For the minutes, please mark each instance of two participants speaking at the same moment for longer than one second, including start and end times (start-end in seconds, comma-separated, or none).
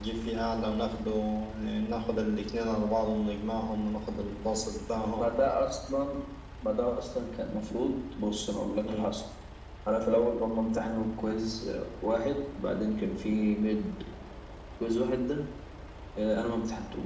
none